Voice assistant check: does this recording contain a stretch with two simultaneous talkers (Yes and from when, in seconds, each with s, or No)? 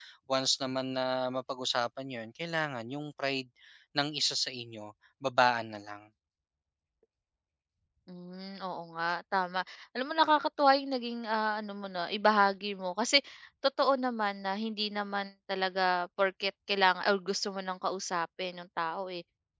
No